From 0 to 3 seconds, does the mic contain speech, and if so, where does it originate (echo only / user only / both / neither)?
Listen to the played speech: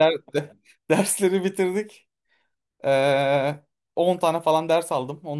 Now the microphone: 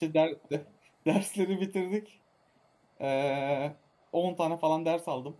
echo only